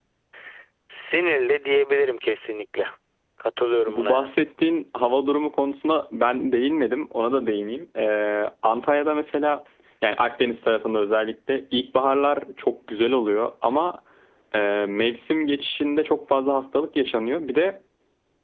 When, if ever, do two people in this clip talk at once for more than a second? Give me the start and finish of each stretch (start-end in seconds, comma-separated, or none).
none